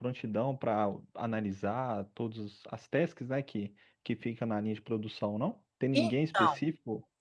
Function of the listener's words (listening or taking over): listening